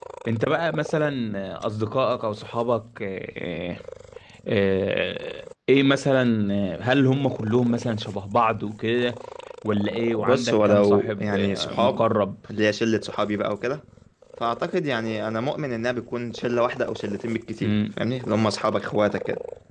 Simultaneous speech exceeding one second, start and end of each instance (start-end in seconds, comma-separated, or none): 10.2-12.1